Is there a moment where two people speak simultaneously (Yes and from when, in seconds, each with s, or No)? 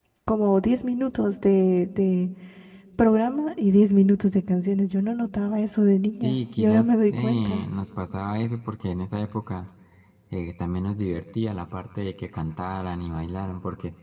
Yes, from 6.2 s